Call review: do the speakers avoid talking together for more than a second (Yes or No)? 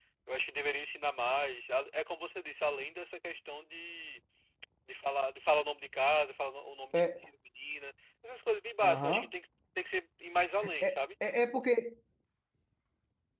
Yes